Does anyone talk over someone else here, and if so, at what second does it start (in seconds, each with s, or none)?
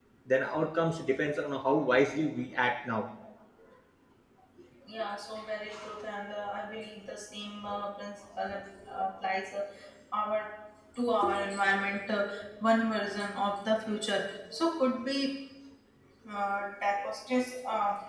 none